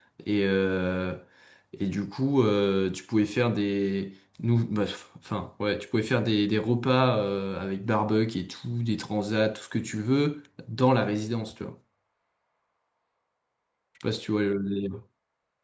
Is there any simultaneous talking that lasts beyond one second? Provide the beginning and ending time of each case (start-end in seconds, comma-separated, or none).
none